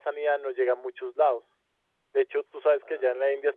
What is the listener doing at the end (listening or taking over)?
listening